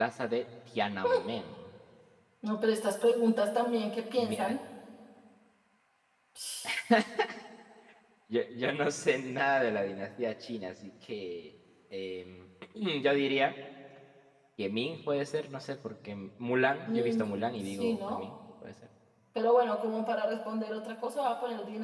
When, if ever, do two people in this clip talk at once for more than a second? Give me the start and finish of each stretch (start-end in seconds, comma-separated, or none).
16.9-18.2